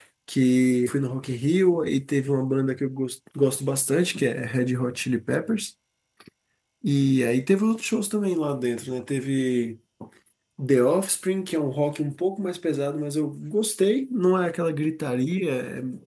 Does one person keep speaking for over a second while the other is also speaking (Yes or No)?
No